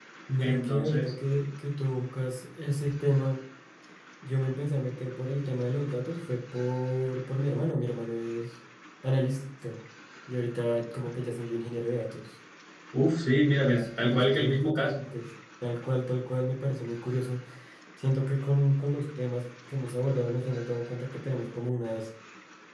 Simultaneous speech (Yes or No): Yes